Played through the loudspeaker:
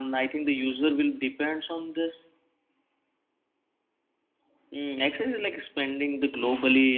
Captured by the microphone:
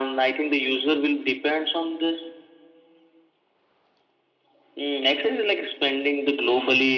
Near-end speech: none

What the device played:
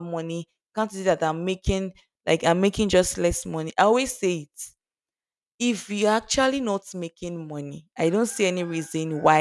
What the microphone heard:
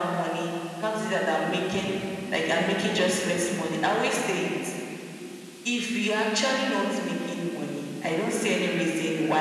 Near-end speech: present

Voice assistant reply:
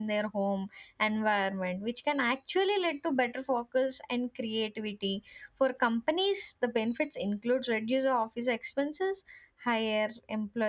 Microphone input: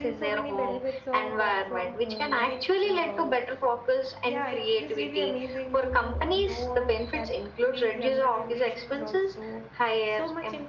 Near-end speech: present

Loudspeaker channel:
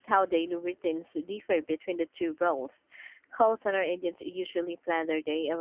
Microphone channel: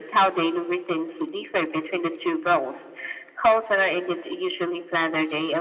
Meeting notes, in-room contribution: none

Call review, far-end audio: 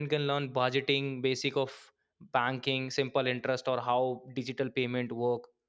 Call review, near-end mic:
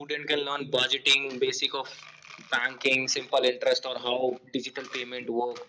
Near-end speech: none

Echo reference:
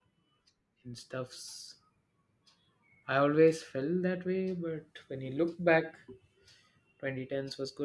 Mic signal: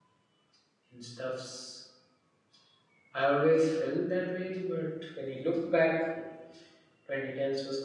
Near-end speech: none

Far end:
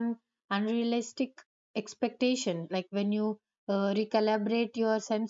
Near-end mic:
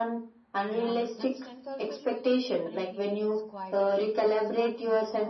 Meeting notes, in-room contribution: present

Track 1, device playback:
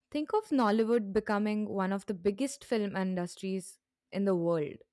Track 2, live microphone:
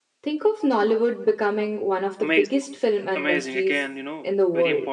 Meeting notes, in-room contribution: present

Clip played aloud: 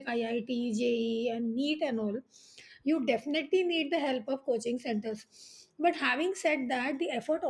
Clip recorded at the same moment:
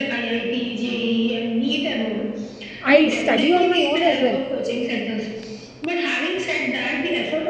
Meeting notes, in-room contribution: present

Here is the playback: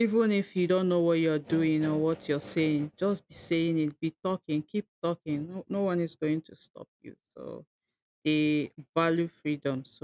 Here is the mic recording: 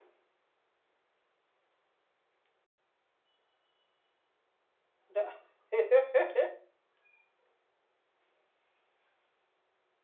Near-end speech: present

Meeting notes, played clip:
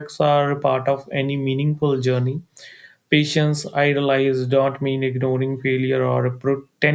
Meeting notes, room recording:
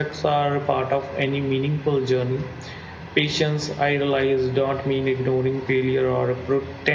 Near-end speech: none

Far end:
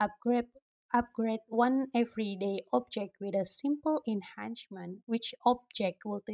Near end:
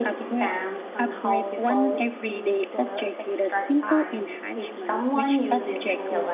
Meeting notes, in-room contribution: present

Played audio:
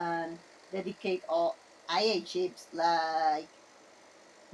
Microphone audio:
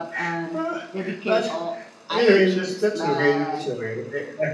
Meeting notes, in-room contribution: present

